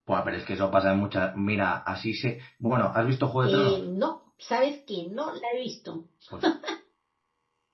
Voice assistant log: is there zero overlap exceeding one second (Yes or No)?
Yes